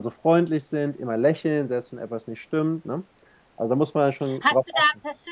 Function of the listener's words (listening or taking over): taking over